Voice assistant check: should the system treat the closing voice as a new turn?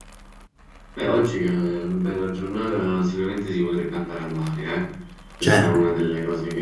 No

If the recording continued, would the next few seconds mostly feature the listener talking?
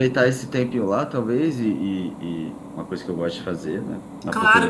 Yes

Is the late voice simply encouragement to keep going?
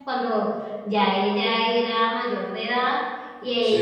Yes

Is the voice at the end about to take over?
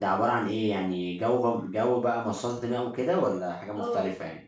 Yes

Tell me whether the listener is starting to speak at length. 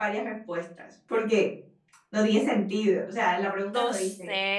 Yes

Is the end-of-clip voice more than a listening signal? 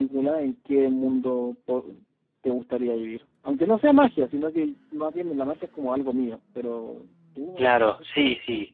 Yes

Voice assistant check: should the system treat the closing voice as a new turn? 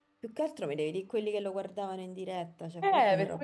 Yes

